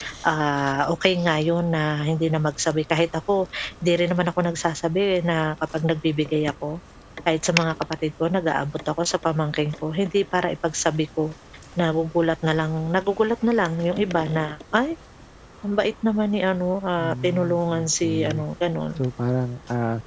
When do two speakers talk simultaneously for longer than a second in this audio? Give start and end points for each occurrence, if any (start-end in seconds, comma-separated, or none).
17.0-18.2